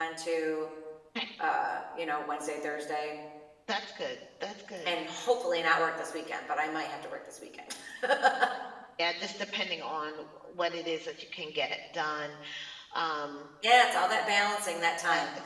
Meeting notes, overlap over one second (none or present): none